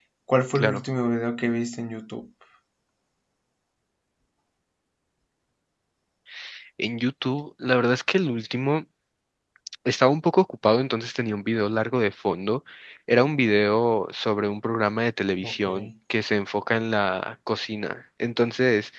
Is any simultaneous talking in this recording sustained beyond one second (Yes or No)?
No